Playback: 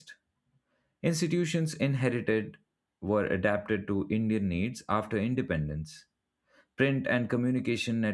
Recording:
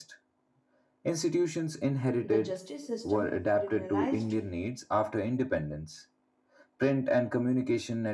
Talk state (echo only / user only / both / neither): both